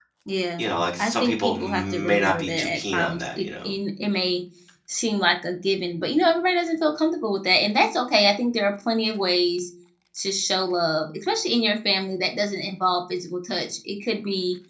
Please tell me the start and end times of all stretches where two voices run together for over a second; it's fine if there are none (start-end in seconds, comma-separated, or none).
1.0-3.7